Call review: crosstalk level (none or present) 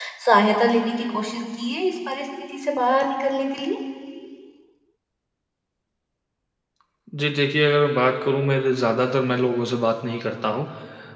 none